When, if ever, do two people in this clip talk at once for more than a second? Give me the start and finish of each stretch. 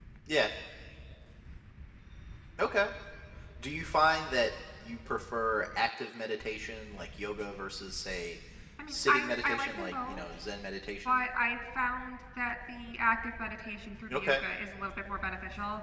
8.9-10.2

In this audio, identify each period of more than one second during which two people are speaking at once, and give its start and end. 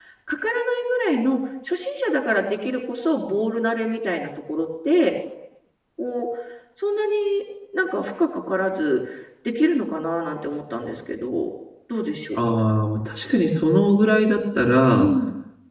none

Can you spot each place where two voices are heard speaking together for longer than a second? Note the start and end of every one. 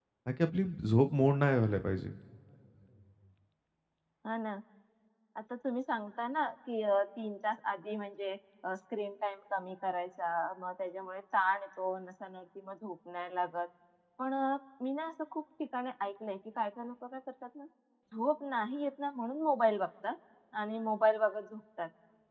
none

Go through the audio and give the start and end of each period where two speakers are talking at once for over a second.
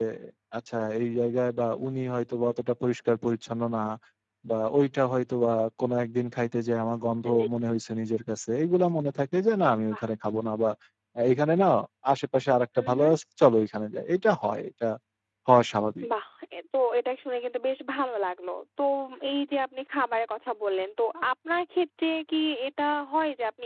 none

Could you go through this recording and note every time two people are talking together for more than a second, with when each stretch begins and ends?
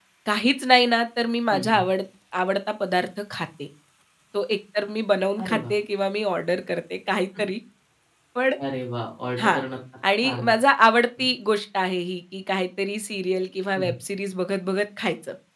none

